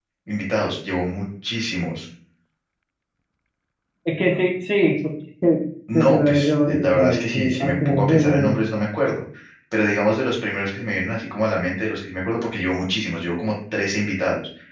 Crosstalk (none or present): present